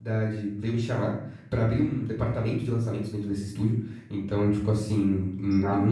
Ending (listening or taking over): listening